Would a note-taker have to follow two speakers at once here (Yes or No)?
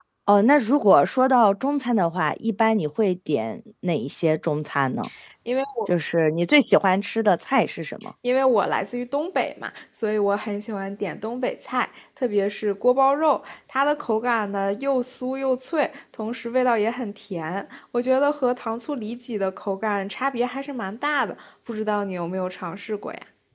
No